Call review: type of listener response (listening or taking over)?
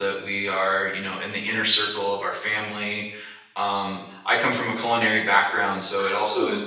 listening